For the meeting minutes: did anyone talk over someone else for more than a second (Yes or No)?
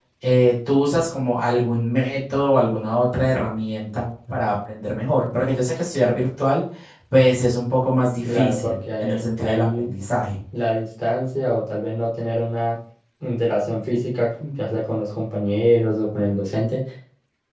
Yes